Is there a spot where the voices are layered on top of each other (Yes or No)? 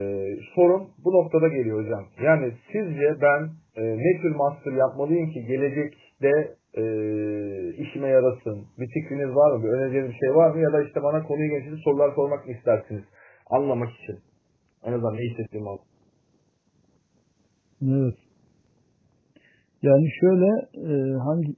No